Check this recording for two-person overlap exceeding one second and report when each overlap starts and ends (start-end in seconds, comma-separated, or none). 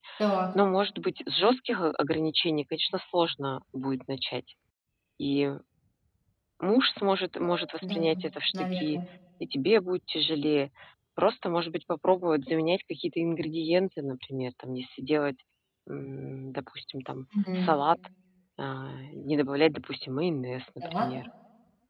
none